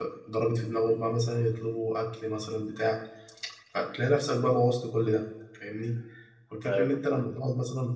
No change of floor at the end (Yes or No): Yes